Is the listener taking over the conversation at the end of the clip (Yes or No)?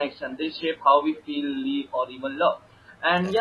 No